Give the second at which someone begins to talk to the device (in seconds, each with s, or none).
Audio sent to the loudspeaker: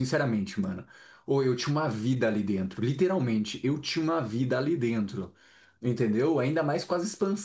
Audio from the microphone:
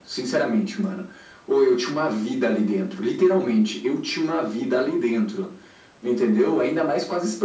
none